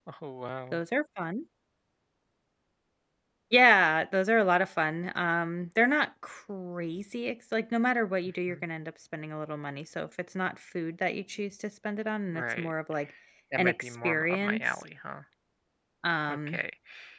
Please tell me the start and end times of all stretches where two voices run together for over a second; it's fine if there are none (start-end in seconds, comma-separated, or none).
13.6-14.8